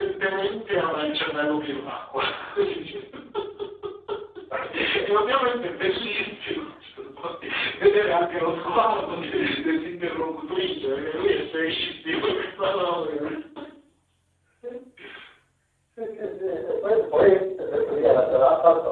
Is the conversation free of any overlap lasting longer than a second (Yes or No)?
Yes